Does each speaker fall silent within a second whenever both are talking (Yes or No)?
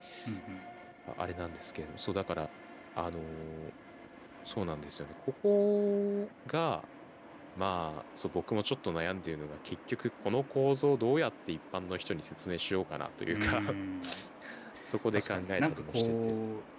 No